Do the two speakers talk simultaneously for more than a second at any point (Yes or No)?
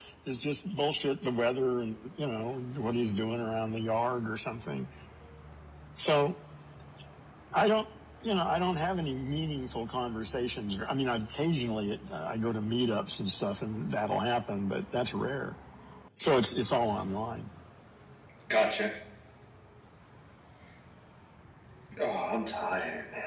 No